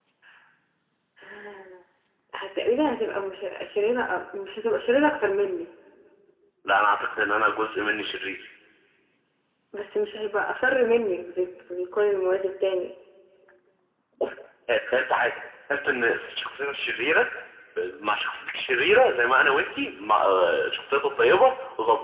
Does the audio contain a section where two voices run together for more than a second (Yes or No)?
No